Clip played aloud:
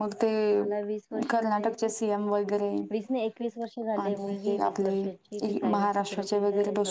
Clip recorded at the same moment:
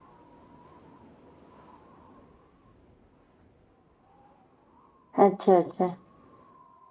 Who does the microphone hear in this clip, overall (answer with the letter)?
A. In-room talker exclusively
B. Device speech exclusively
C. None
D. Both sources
A